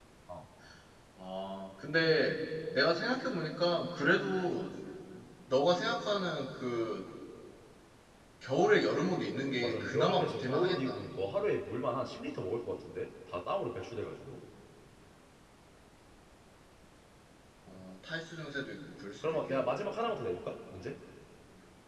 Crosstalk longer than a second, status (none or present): present